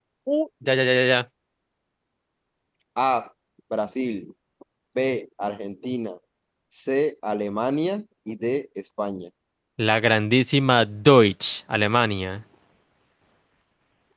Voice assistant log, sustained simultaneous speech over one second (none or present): none